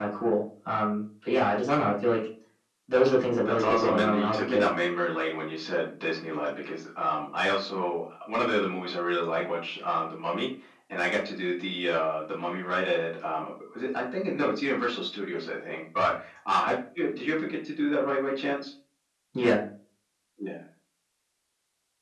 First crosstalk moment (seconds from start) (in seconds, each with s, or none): 3.5 s